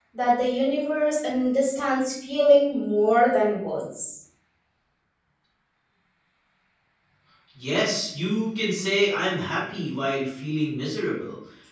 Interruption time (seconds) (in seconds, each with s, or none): none